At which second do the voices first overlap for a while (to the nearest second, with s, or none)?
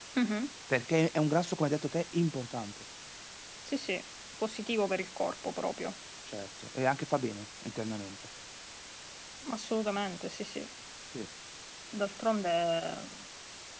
none